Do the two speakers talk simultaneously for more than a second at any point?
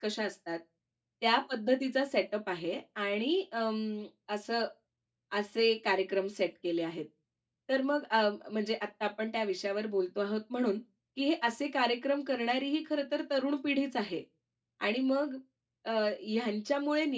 No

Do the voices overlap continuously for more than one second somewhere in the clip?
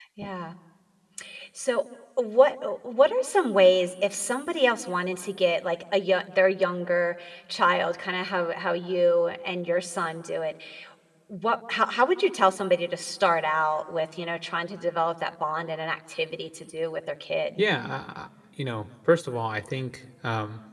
No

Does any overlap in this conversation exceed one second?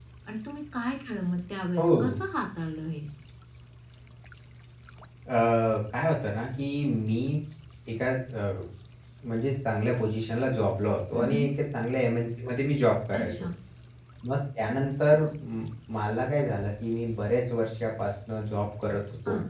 No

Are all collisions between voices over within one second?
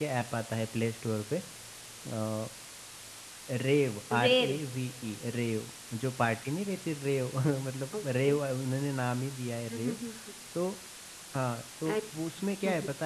Yes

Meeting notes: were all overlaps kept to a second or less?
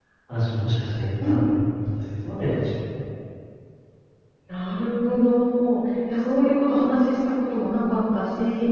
Yes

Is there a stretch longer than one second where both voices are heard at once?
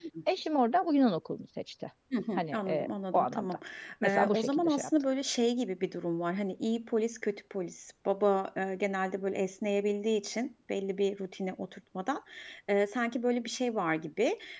Yes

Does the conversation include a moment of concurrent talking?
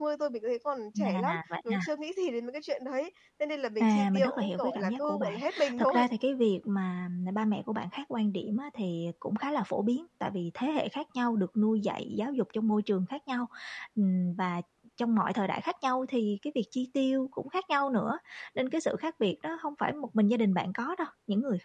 Yes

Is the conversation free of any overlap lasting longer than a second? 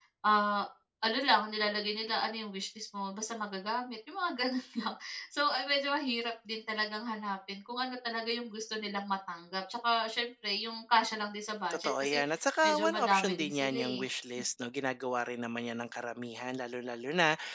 No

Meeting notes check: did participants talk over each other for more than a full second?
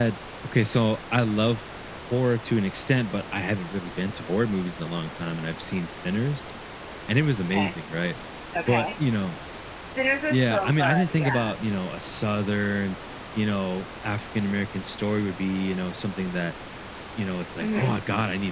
Yes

